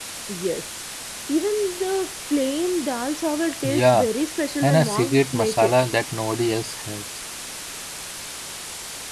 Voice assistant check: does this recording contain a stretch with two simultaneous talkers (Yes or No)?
Yes